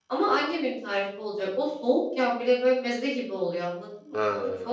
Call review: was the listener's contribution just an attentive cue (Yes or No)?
Yes